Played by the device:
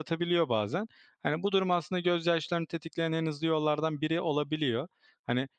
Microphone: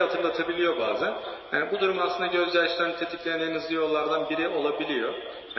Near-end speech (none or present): none